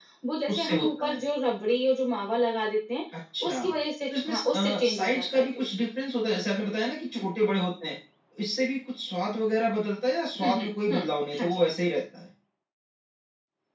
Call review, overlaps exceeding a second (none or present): present